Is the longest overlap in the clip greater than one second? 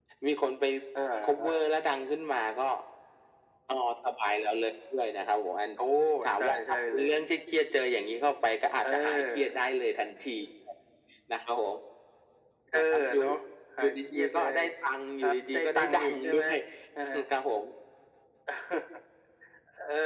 Yes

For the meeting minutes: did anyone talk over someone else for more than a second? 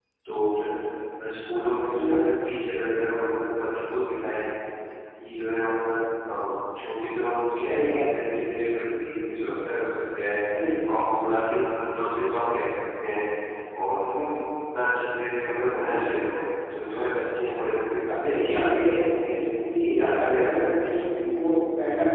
Yes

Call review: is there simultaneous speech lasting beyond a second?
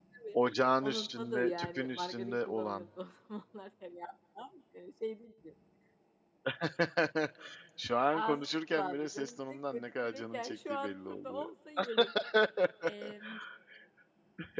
Yes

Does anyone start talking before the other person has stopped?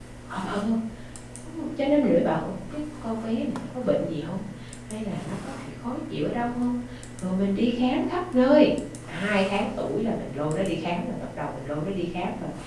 No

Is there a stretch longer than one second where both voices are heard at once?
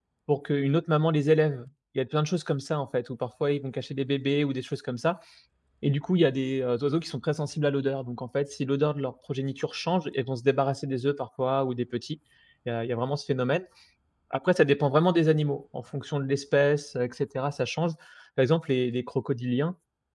No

